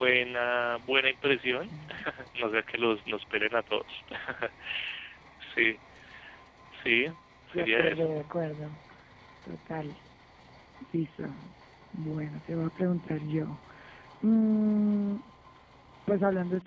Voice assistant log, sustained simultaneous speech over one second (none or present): none